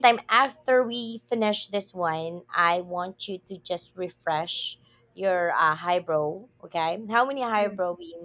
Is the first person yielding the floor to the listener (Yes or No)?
No